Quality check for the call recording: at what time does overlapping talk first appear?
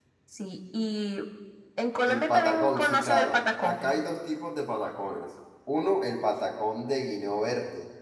2.1 s

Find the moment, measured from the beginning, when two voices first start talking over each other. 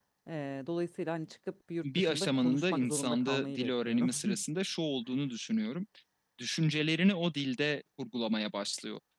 1.8 s

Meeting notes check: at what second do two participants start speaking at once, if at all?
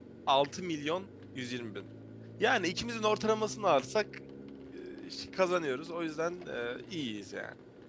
none

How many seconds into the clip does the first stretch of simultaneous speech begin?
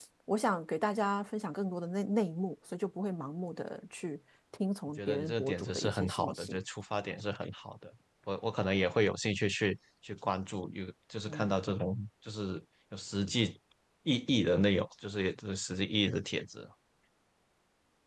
5.0 s

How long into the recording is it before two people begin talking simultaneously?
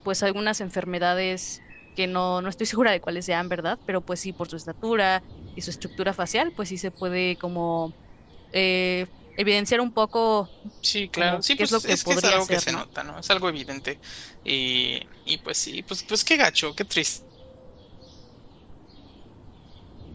11.2 s

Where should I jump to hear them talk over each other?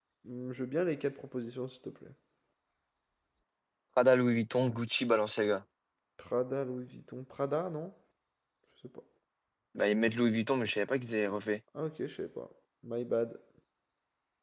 none

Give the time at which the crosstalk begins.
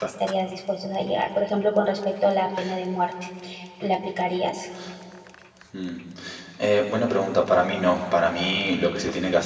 none

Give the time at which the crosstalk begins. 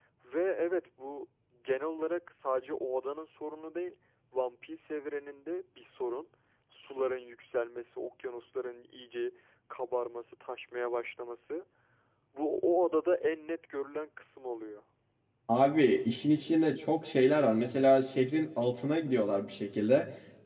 none

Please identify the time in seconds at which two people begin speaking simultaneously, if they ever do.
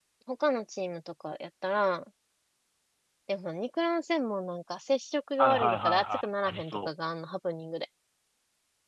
5.4 s

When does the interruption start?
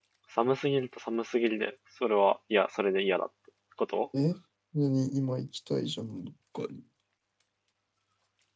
none

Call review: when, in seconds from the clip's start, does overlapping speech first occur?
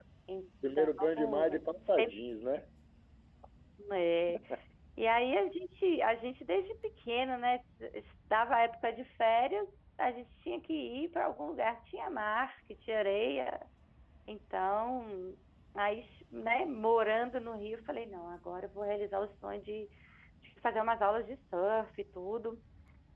0.7 s

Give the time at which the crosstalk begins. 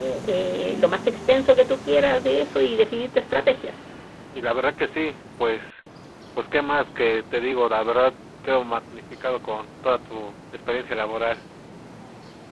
none

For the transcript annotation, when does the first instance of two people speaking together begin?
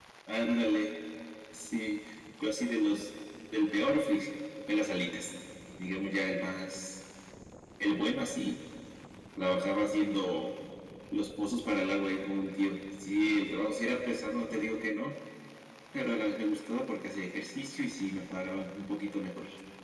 none

